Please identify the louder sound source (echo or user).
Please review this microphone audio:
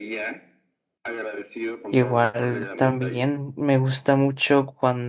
user